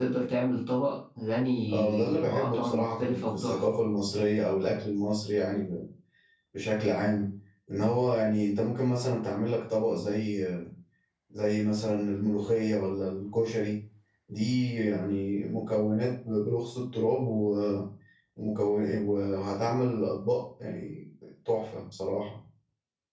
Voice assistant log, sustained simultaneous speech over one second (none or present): present